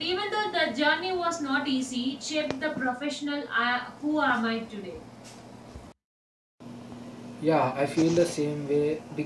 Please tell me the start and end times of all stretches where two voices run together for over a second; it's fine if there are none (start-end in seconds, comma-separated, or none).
none